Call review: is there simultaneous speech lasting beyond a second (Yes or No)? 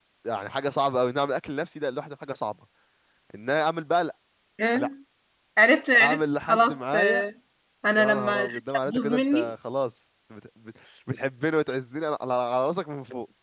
Yes